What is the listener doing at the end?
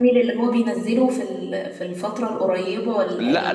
taking over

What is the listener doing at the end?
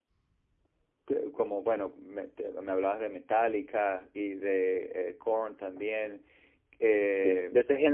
taking over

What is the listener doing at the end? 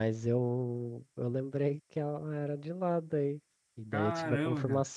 listening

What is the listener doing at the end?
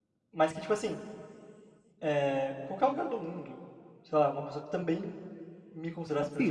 taking over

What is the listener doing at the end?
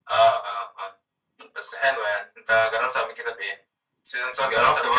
taking over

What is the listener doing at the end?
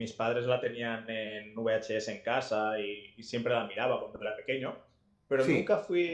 listening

